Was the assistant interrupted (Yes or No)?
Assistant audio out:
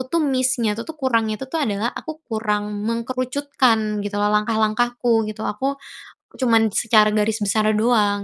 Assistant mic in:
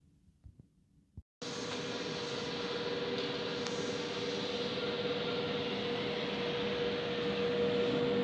No